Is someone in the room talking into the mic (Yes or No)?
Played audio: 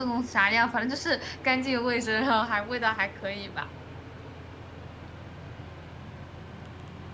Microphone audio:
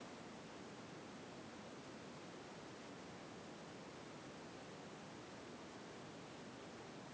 No